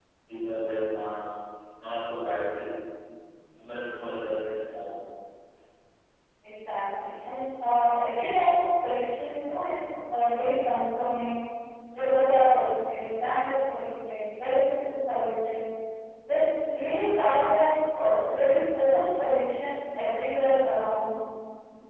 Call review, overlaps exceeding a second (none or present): none